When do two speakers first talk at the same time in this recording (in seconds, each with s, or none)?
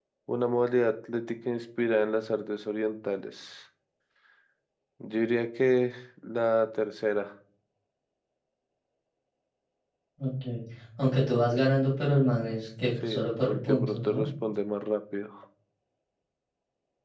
13.0 s